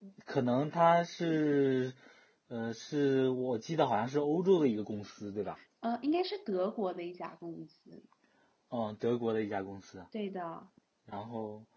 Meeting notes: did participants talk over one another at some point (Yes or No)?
No